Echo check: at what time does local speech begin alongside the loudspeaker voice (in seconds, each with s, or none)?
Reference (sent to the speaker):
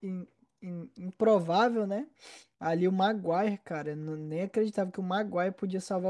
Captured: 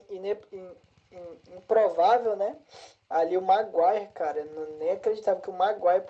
none